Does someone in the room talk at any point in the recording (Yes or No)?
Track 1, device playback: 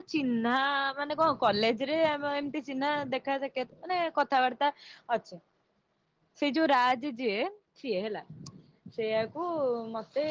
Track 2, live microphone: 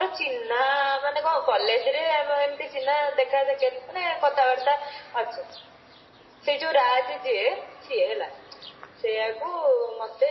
No